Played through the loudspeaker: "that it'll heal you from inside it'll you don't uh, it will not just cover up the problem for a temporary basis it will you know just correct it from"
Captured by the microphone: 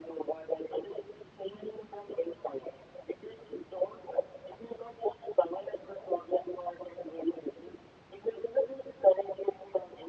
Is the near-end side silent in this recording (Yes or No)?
Yes